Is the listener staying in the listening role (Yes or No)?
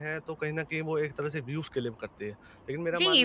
No